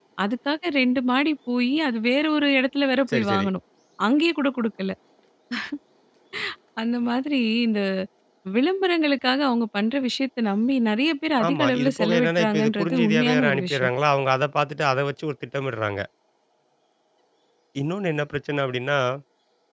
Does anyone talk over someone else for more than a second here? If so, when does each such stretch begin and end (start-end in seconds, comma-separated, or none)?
11.4-13.9